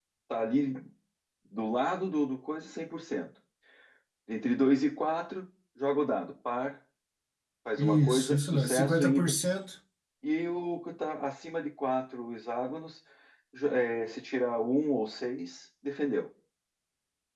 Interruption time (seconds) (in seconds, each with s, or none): 7.8 s